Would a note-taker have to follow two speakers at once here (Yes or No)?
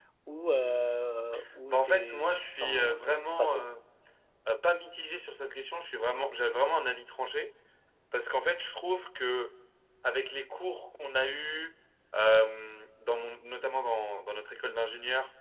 Yes